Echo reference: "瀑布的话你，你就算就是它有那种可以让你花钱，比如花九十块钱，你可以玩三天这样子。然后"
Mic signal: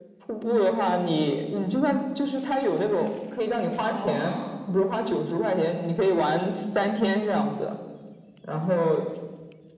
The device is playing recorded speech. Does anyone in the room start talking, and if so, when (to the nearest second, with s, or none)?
4 s